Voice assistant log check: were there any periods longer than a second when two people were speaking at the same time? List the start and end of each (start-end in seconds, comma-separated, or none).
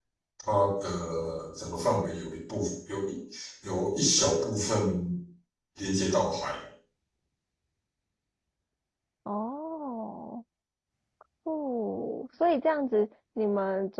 none